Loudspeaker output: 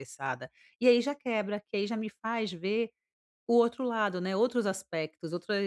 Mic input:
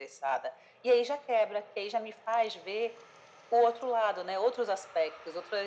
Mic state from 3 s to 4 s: echo only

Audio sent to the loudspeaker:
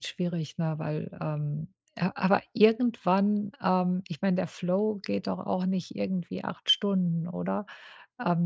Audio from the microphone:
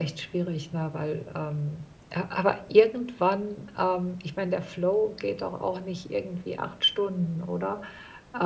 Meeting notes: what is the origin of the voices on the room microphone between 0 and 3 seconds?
echo only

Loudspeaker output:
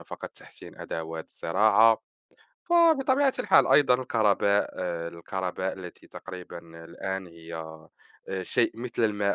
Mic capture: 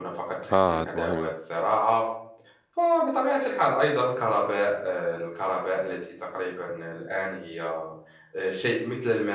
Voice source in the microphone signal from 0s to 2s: both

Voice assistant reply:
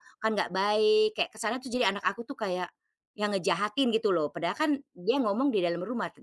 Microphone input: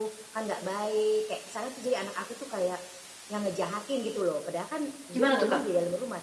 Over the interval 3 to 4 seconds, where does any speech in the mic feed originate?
echo only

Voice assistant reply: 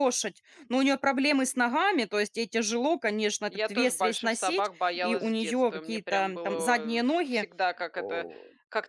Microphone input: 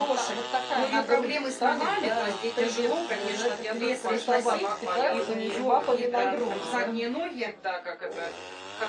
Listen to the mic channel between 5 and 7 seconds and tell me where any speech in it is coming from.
both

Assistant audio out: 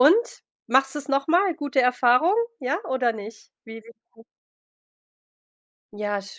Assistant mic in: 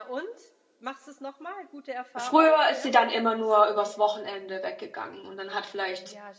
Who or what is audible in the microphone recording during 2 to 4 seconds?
both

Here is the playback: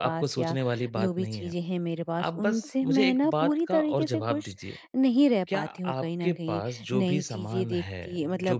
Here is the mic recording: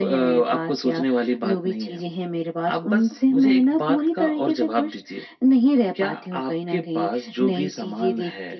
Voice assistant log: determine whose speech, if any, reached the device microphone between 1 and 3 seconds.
echo only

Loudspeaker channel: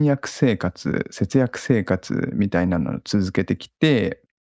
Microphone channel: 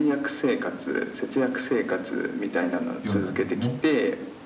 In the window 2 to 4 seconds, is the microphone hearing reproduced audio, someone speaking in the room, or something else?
both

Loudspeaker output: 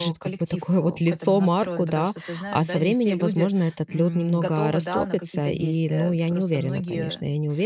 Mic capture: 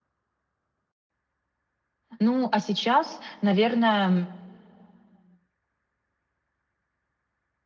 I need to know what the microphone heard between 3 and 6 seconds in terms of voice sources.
user only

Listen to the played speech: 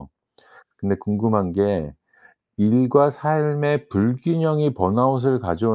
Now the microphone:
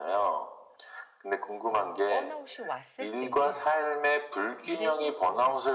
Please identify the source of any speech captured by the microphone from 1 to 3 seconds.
both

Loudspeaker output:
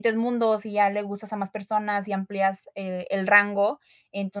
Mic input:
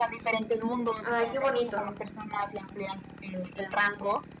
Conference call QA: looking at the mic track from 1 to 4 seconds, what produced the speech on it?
both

